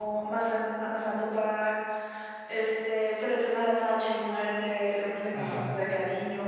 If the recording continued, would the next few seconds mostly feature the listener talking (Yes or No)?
No